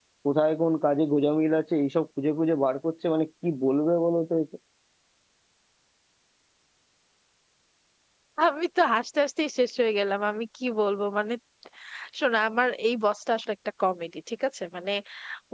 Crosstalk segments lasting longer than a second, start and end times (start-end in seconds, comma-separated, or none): none